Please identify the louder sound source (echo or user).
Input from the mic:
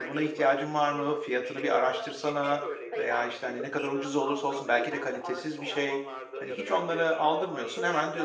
user